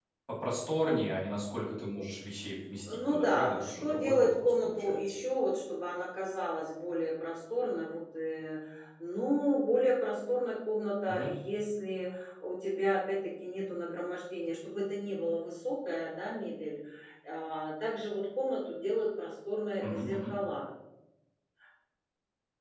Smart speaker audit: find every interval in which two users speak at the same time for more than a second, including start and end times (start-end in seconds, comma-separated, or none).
2.9-5.0